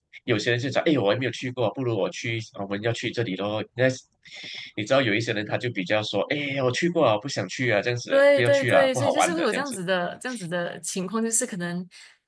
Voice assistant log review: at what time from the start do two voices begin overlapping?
8.1 s

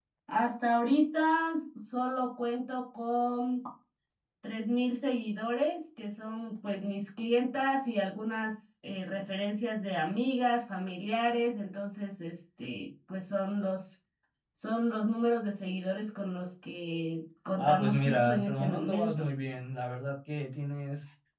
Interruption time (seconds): 17.6 s

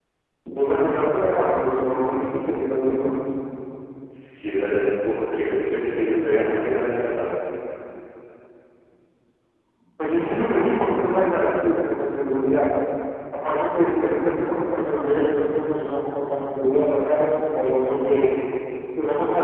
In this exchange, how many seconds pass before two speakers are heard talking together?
none

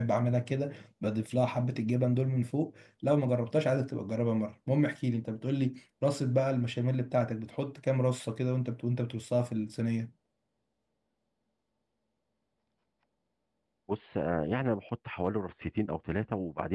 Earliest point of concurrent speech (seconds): none

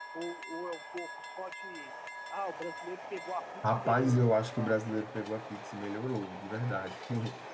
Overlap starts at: 3.6 s

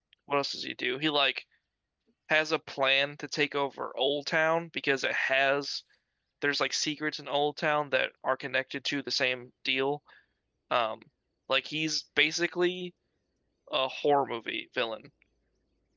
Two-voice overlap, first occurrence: none

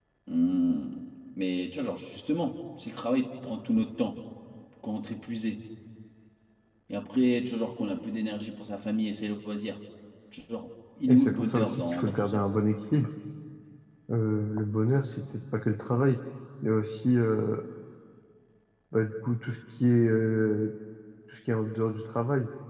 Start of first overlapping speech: 11.1 s

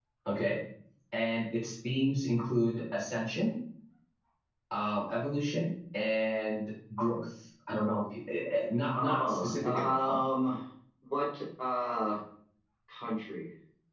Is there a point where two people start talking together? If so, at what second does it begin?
8.9 s

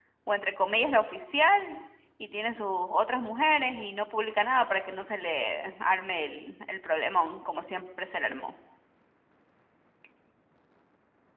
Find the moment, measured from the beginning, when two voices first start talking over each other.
none

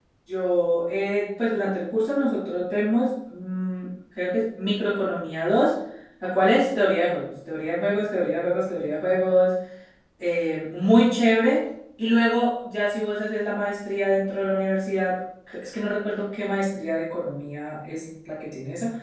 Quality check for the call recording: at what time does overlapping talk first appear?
none

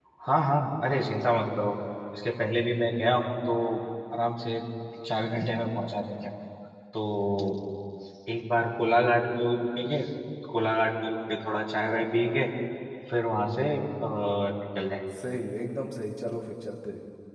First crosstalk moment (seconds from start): none

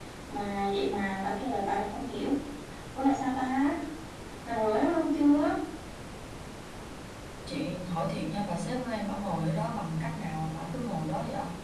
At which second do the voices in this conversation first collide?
none

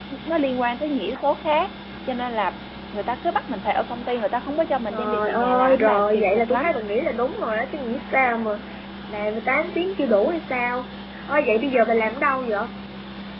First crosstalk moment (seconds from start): 4.9 s

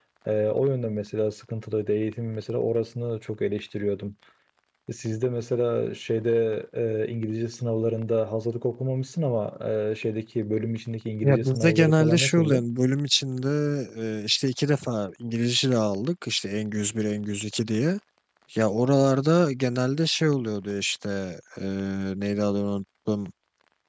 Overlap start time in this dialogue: 11.2 s

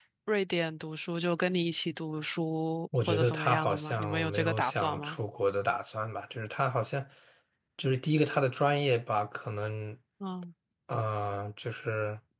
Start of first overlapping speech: 2.9 s

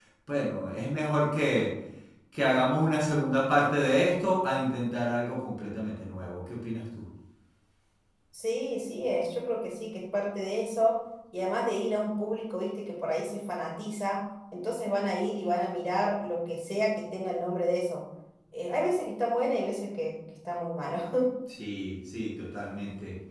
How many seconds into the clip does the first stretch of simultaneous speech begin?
none

